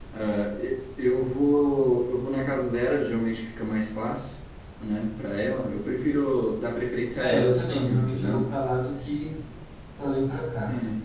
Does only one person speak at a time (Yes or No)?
No